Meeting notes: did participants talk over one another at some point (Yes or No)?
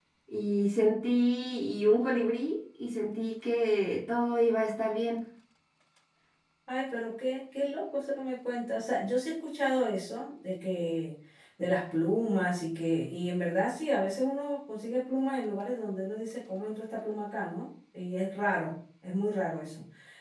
No